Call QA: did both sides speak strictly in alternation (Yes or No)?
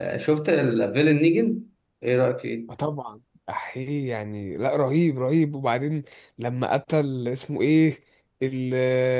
Yes